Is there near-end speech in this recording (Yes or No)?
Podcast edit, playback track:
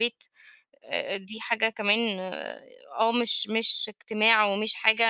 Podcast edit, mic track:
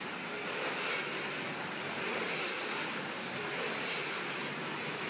No